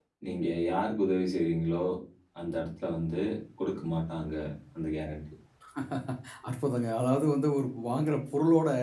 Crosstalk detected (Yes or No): No